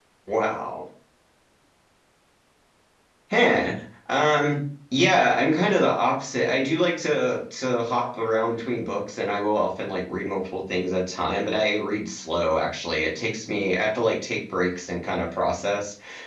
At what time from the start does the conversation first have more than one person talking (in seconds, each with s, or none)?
none